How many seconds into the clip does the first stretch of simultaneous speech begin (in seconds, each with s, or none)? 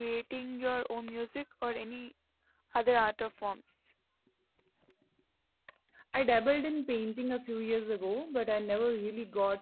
none